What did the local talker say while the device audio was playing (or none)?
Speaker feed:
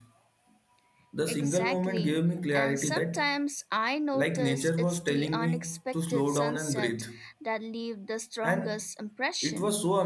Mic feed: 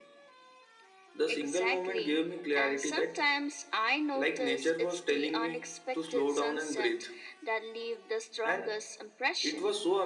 none